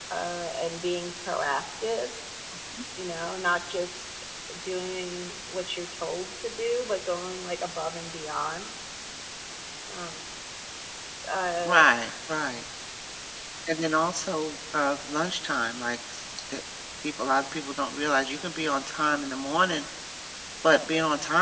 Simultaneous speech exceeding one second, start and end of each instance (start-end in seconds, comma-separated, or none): none